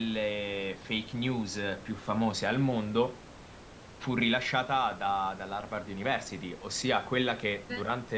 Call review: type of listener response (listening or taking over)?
listening